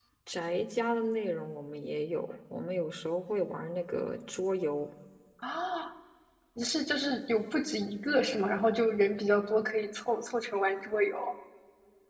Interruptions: none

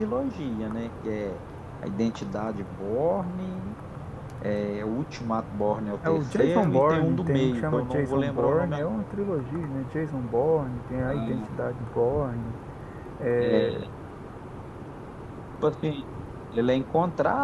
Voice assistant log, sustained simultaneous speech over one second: present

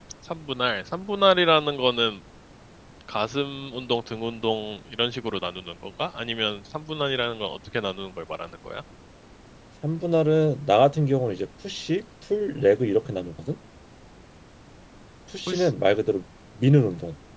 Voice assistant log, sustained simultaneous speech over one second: none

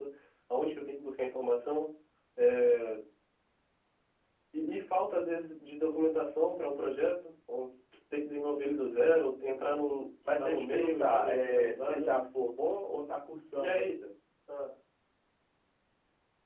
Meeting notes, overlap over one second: present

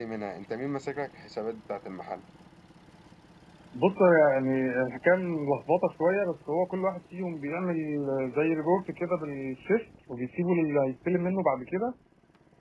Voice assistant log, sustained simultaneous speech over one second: none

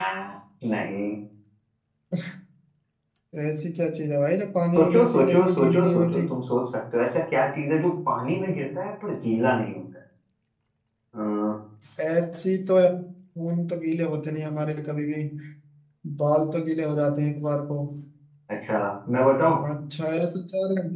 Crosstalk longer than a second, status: present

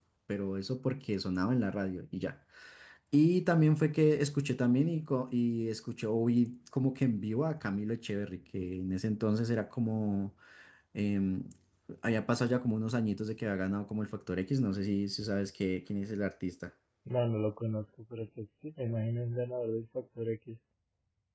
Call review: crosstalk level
none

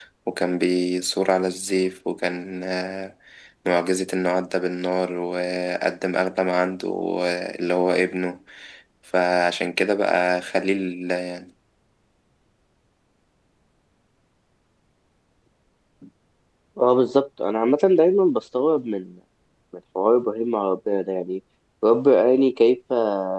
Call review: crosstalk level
none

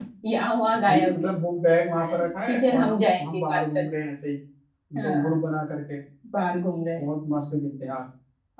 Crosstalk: present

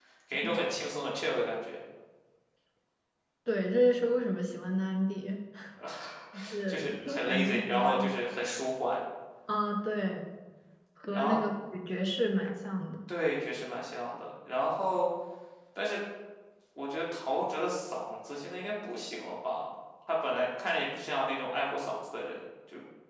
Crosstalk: present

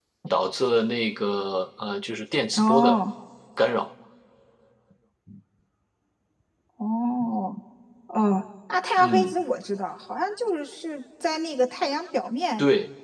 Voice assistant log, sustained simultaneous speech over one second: none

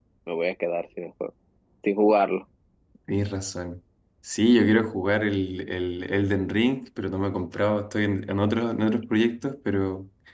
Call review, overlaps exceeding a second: none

